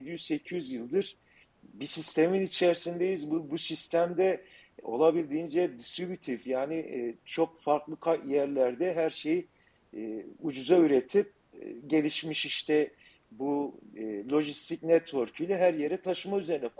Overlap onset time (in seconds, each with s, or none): none